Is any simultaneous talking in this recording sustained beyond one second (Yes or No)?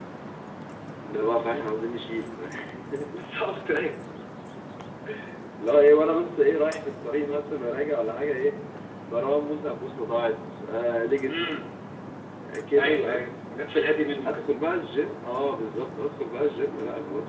No